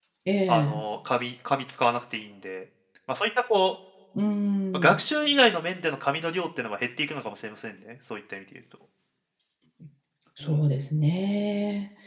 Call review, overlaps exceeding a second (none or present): none